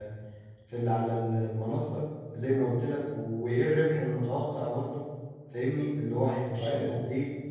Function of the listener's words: listening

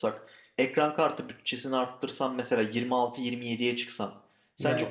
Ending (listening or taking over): listening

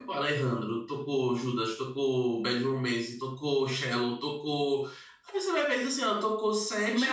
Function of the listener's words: taking over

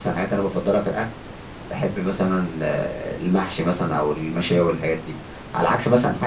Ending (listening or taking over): listening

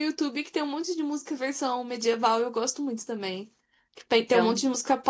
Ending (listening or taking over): listening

